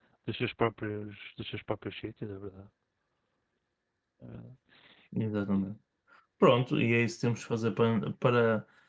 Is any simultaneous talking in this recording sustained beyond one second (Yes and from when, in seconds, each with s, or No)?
No